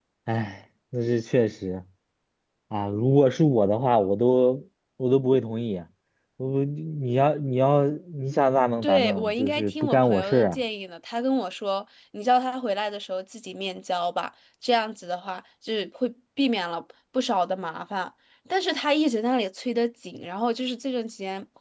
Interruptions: present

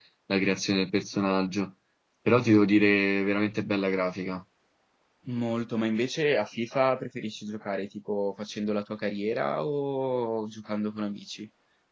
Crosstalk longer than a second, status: none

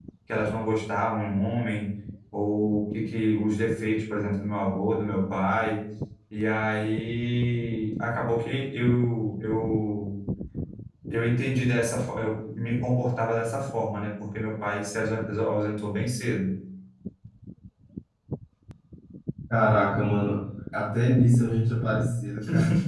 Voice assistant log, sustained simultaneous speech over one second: none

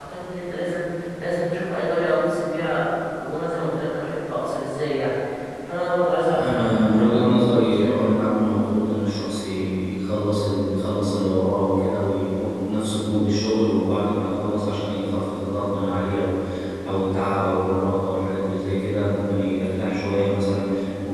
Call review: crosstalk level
present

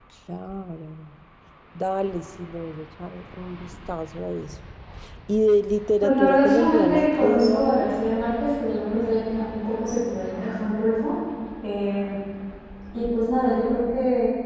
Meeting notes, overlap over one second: present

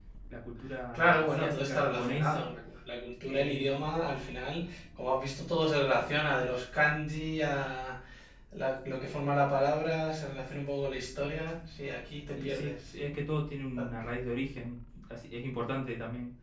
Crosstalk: present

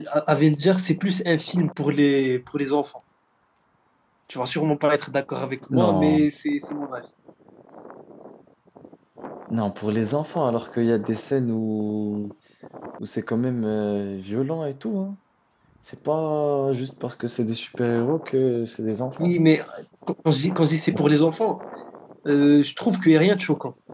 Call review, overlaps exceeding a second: none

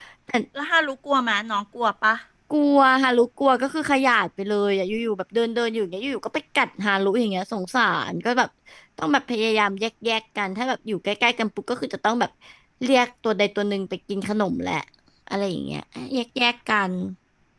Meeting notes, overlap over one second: none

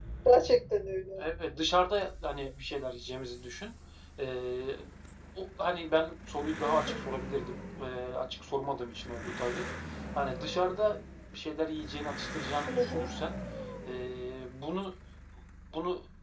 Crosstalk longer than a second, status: none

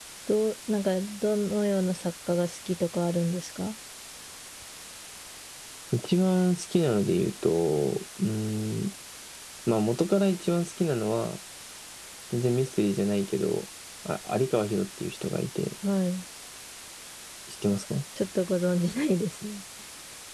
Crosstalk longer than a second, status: none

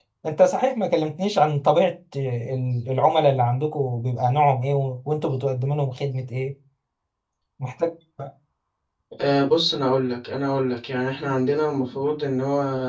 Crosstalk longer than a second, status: none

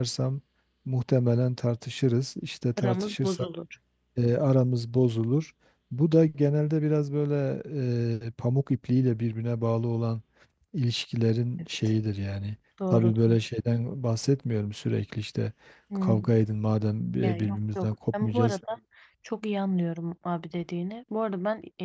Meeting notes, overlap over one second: present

